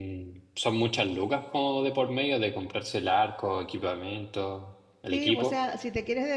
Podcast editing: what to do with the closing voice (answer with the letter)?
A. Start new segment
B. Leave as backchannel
A